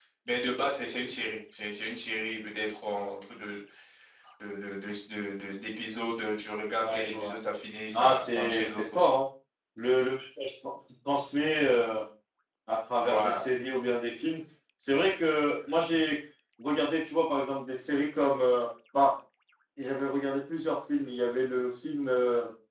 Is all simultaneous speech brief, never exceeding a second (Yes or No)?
No